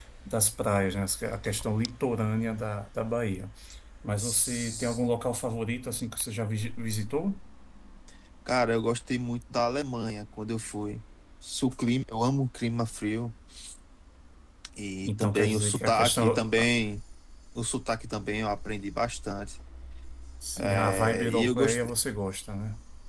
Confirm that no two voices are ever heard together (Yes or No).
No